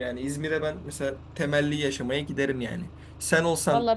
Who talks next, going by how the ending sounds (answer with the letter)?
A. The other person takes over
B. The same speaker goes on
B